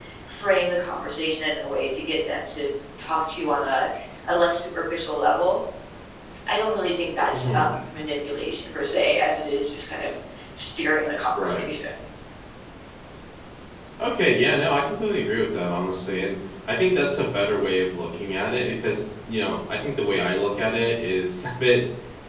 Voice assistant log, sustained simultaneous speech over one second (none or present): none